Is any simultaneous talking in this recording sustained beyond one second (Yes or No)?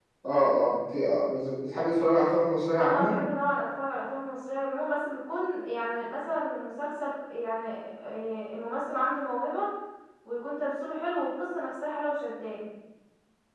No